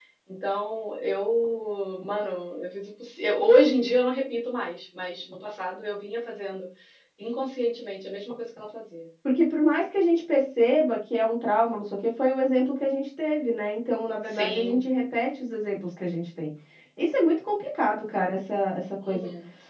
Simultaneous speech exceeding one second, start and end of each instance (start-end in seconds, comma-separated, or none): none